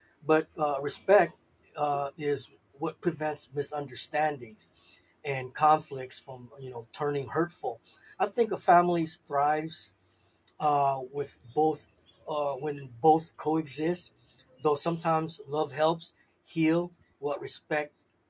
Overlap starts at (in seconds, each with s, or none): none